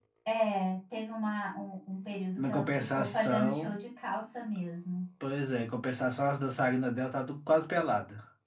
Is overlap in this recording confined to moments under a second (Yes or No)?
No